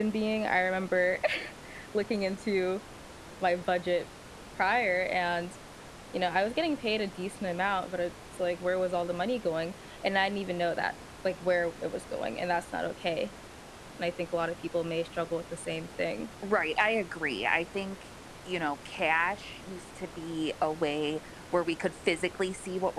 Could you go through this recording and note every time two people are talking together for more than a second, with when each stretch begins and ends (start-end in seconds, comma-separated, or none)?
none